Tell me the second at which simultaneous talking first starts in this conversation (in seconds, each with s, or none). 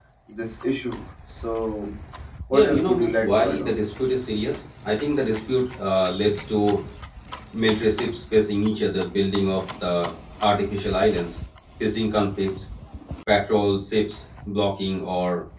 2.5 s